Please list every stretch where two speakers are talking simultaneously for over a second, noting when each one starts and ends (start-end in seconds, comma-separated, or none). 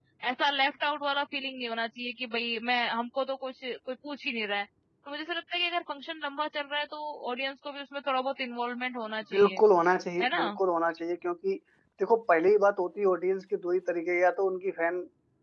none